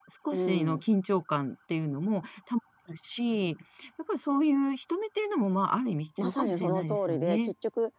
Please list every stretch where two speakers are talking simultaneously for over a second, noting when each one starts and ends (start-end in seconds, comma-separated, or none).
6.2-7.4